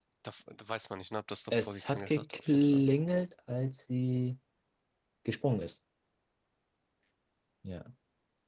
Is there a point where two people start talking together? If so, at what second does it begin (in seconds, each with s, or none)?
1.5 s